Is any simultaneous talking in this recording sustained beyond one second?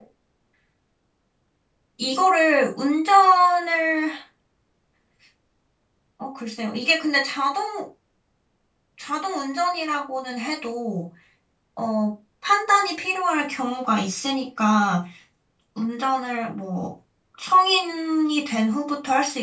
No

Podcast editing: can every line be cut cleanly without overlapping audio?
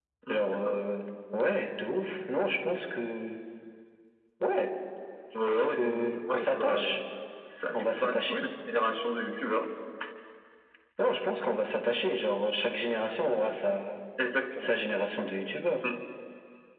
No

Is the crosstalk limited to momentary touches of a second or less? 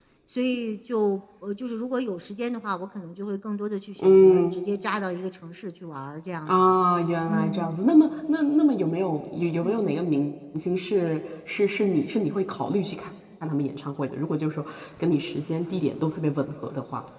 Yes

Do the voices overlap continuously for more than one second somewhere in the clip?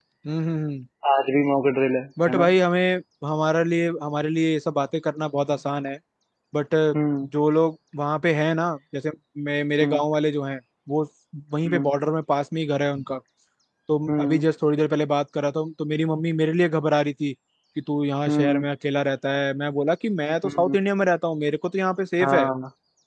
No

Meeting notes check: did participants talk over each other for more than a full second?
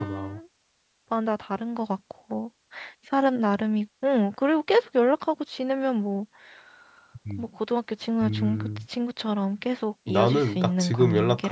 Yes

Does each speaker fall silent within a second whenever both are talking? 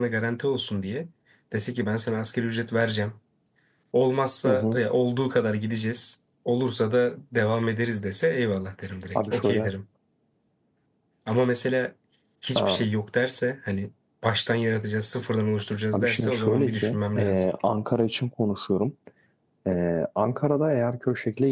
No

